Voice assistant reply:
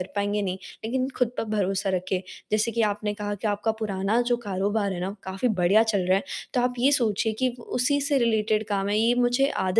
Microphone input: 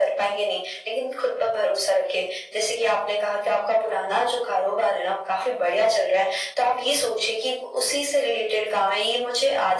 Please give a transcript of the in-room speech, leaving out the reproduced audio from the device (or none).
none